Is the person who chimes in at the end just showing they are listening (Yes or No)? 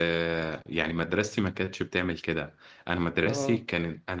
Yes